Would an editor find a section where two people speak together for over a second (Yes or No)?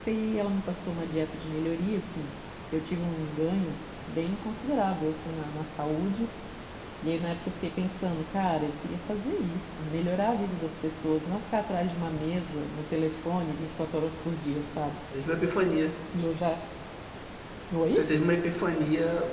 No